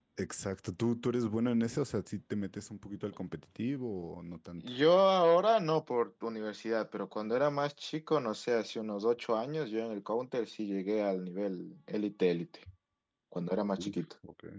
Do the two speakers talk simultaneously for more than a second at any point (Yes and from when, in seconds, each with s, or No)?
No